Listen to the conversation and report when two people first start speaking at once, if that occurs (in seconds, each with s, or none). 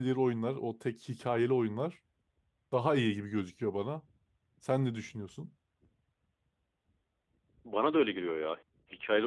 none